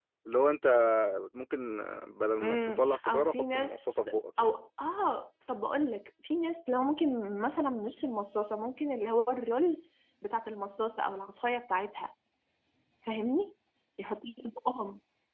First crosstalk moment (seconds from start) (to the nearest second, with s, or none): 2 s